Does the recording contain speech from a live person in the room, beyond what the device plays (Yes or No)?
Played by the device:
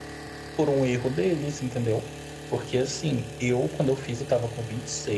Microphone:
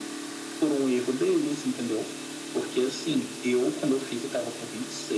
No